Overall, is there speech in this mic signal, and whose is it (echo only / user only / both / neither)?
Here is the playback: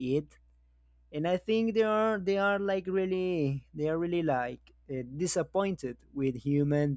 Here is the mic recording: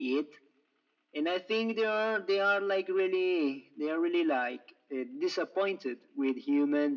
echo only